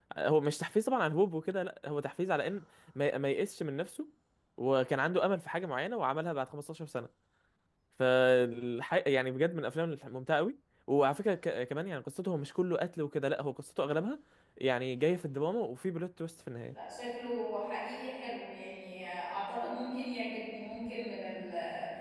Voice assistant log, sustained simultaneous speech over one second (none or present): none